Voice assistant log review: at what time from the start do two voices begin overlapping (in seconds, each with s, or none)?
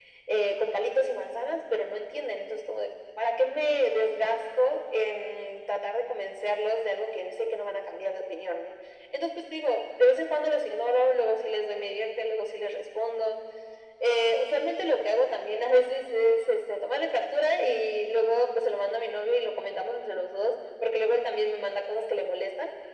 none